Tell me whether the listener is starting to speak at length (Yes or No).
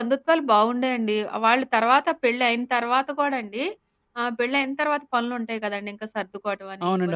No